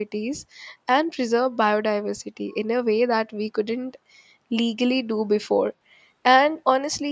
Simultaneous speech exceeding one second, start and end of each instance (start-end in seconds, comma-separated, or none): none